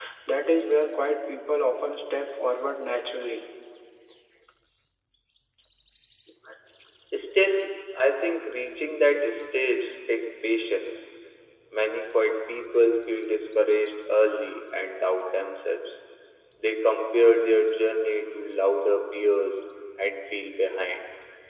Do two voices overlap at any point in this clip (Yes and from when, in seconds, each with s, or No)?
No